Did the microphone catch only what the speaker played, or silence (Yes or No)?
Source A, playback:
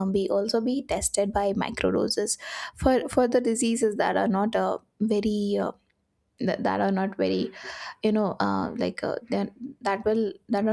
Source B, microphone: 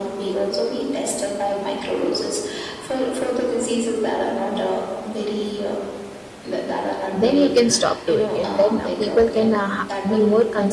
No